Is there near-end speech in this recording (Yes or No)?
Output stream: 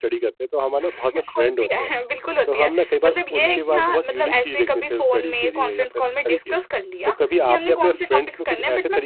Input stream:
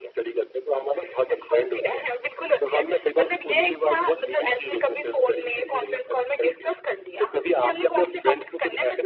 No